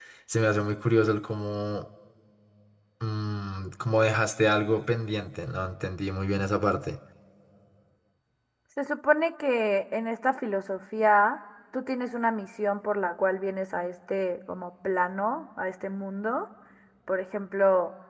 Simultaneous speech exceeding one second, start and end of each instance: none

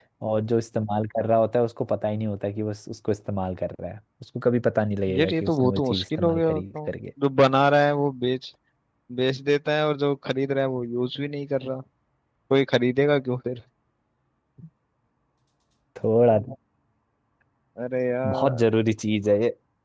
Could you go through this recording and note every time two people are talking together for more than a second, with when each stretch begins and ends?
5.2-6.6

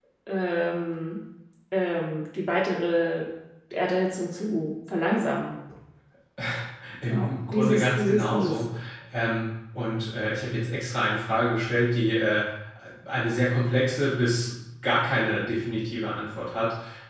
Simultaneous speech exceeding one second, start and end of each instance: 7.1-8.6

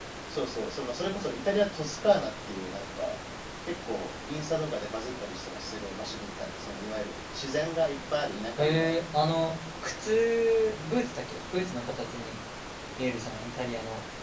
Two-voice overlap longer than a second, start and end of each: none

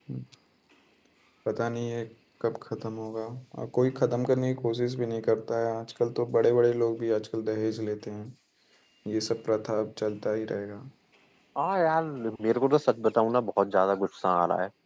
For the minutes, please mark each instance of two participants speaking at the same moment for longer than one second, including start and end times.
none

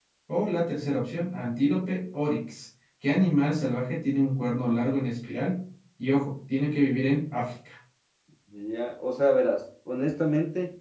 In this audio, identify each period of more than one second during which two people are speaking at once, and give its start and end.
none

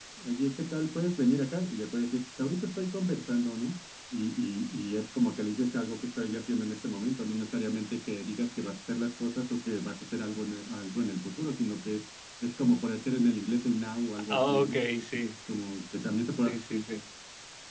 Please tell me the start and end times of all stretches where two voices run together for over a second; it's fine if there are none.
none

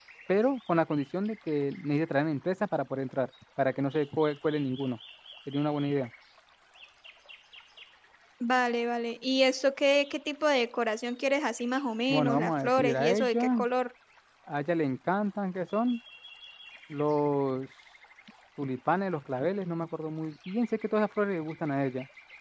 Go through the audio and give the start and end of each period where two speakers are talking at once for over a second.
12.1-13.6

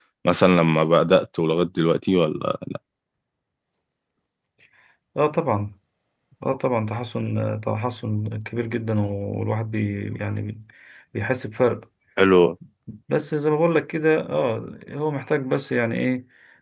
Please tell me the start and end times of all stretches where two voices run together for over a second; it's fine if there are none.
none

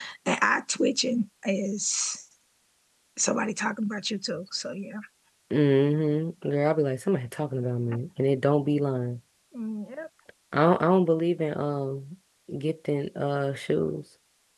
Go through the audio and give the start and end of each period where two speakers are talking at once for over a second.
none

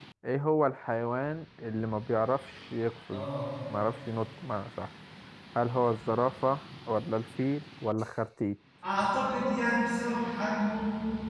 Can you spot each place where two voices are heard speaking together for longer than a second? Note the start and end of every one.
none

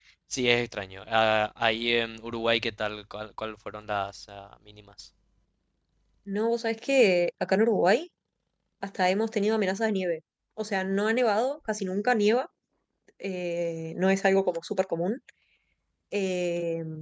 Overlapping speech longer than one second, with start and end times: none

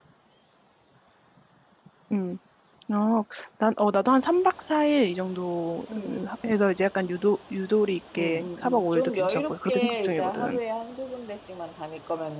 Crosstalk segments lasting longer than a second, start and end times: 8.2-10.6

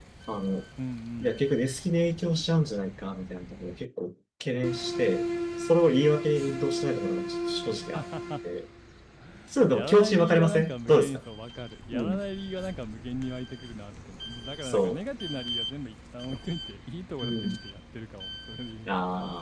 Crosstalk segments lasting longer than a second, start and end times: 9.7-11.2

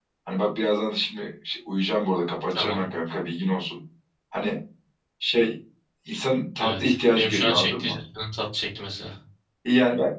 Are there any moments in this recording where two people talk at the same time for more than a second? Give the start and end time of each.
6.6-8.0

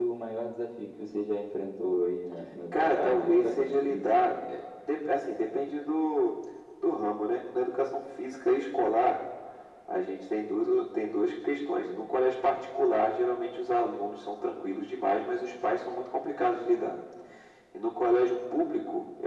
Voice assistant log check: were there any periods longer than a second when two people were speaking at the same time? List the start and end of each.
2.7-4.3

